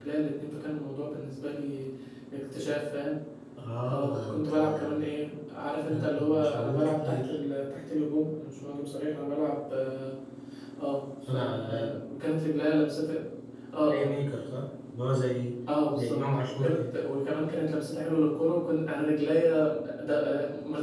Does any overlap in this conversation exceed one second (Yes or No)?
Yes